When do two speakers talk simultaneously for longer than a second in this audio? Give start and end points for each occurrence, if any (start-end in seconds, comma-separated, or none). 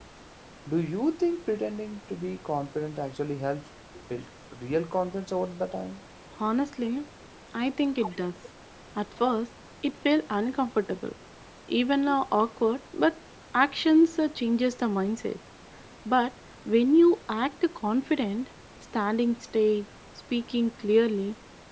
none